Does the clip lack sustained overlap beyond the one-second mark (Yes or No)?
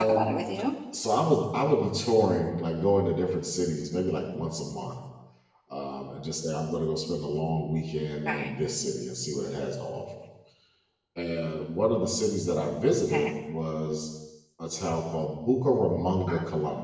Yes